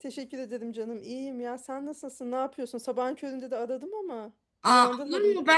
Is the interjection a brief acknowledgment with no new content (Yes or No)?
No